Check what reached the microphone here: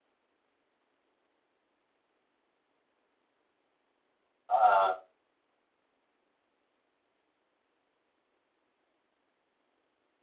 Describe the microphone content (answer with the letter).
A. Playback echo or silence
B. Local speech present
B